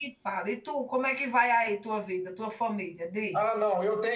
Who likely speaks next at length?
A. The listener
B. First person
A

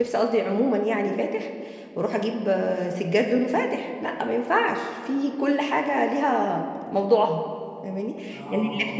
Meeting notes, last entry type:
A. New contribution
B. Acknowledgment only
B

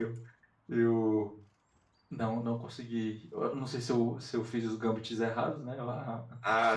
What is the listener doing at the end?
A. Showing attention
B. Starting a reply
A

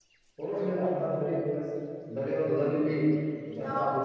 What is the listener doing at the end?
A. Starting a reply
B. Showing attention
B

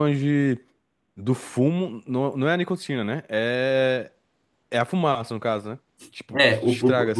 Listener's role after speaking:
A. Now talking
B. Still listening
A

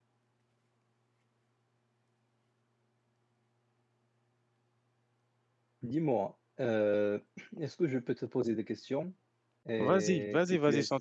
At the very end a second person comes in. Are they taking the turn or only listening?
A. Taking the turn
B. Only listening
A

